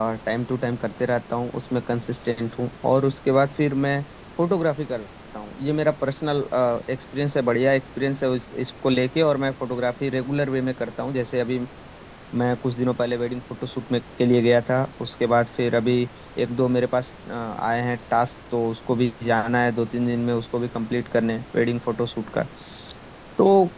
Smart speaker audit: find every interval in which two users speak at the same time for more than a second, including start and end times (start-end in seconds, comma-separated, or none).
none